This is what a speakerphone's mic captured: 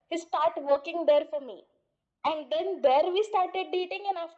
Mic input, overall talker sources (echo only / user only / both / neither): echo only